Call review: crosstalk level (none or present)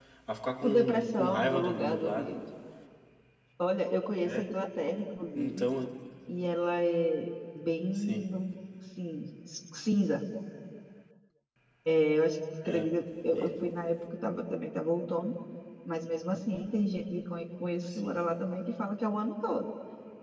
present